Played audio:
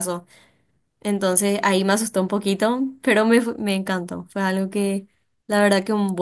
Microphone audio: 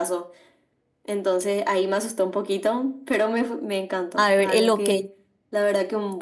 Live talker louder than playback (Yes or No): Yes